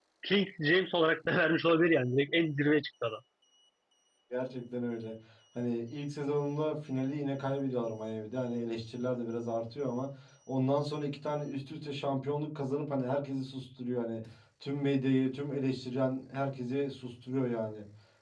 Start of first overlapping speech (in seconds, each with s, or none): none